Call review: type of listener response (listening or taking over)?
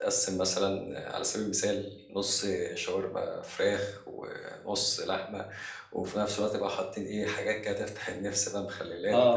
taking over